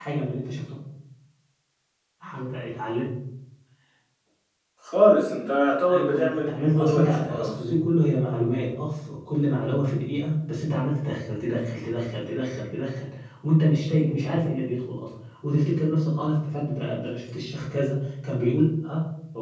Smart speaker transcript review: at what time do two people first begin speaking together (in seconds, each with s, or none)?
5.9 s